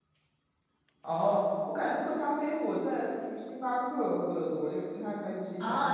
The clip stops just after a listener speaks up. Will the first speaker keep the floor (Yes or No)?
No